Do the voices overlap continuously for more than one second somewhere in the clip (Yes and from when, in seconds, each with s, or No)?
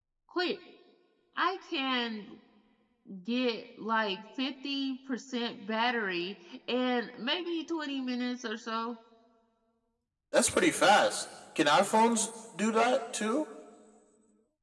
No